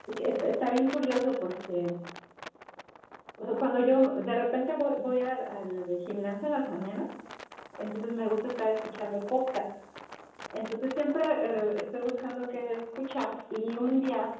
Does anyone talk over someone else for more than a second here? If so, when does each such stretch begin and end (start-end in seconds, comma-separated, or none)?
none